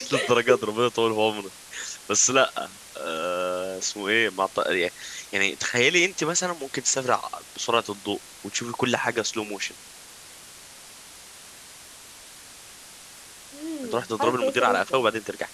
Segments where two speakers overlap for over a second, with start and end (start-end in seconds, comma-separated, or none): 13.8-15.0